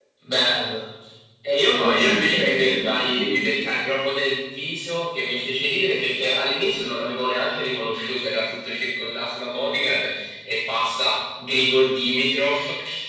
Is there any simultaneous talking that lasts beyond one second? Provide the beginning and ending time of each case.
1.7-3.3

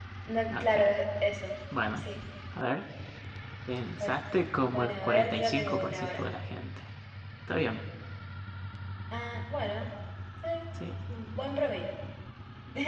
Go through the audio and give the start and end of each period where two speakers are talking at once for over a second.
4.7-6.2

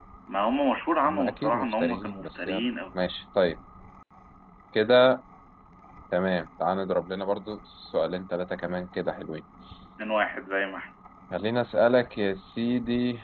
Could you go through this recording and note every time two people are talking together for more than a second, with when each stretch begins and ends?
1.0-2.7

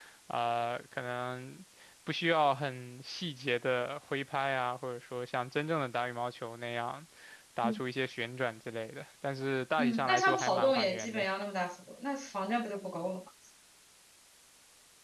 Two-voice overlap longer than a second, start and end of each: 9.8-11.2

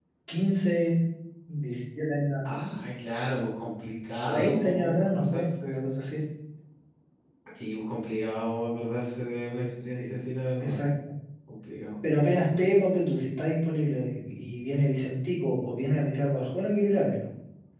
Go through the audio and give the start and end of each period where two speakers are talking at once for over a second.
4.2-5.8

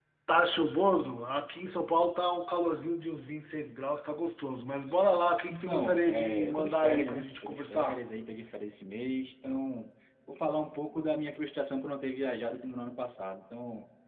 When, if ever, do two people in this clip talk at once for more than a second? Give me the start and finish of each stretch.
5.5-8.0

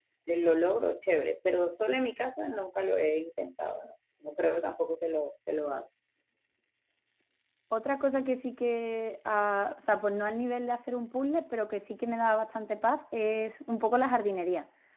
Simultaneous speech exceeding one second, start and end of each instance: none

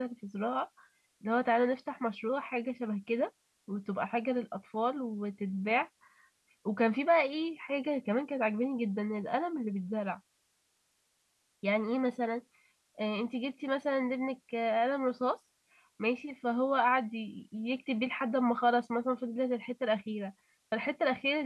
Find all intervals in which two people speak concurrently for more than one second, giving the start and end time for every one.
none

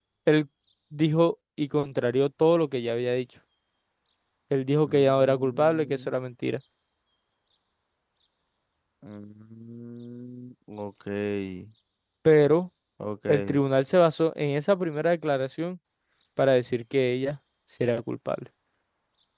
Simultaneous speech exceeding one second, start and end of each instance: 4.8-6.2

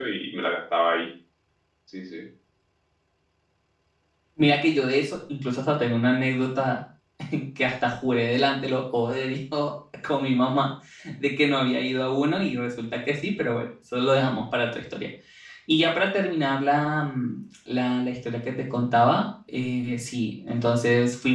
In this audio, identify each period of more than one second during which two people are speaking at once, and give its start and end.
none

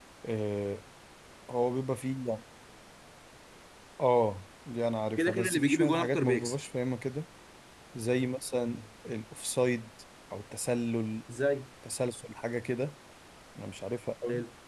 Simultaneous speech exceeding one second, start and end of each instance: 5.2-6.5

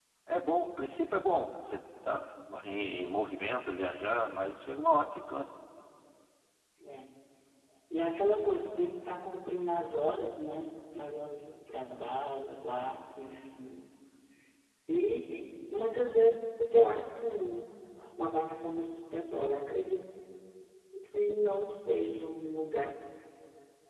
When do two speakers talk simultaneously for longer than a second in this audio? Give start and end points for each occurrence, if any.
none

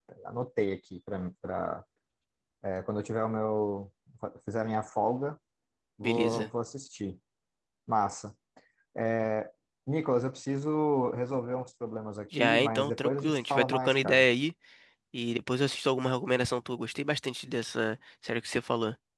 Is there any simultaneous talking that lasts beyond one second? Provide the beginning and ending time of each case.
12.4-14.3

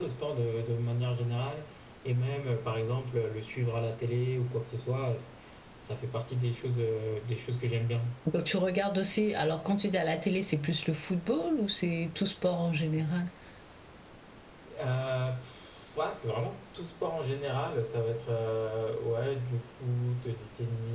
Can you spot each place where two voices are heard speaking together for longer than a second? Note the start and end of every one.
none

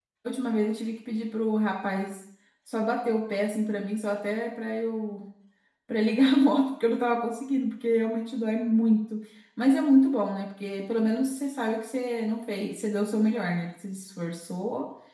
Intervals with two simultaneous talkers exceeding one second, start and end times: none

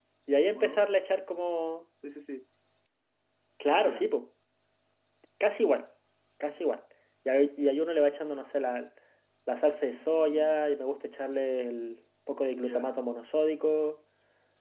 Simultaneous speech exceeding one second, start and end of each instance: none

